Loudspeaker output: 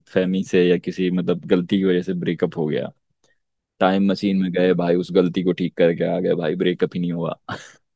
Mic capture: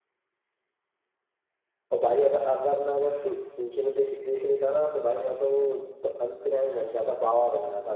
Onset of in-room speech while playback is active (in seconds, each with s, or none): 1.9 s